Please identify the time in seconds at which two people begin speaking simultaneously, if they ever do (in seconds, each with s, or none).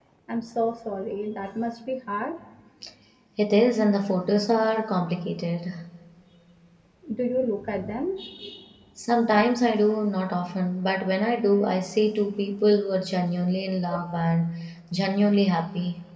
none